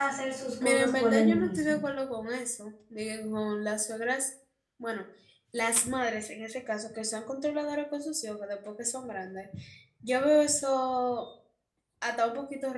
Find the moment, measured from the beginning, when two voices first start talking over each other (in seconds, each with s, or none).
0.6 s